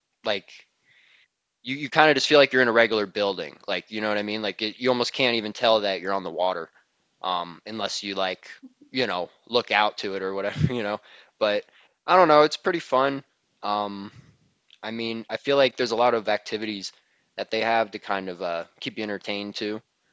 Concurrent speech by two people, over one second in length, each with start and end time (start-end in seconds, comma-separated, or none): none